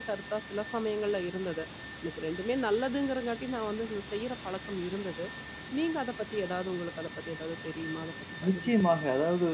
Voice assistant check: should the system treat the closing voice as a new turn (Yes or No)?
Yes